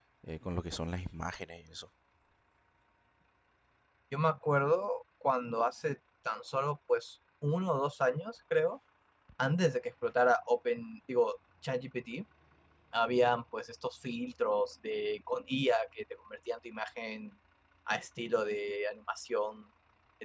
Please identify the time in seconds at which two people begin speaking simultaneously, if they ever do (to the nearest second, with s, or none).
none